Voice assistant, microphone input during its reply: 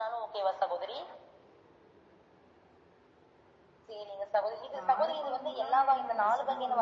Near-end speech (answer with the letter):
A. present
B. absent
A